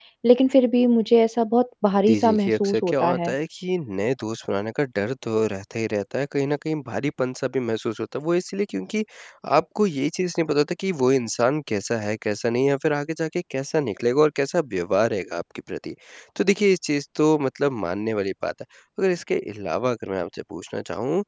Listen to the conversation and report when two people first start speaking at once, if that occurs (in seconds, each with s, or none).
2.1 s